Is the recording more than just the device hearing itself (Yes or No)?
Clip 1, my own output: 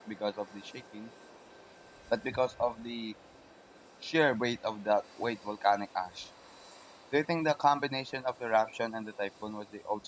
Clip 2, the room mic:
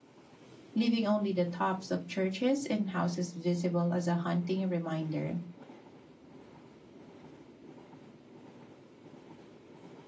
Yes